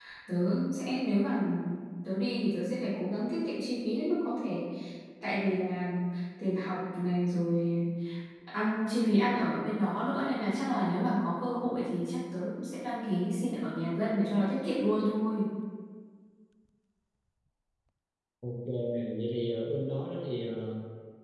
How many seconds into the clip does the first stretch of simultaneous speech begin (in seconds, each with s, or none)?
none